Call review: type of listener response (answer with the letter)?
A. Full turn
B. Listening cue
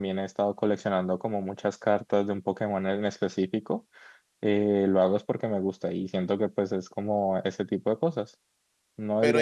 A